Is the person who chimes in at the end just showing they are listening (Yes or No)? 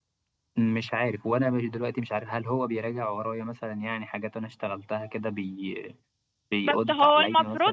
No